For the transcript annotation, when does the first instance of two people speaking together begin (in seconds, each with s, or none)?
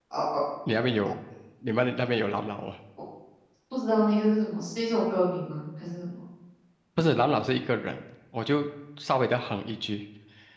none